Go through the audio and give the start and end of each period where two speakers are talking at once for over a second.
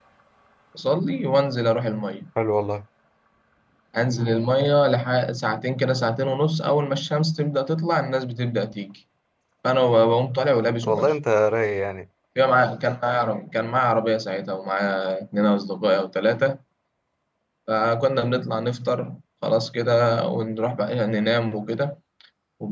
none

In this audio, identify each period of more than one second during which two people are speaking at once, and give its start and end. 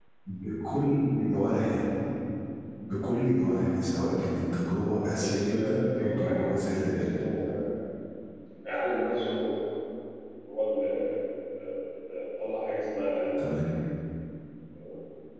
5.2-7.1

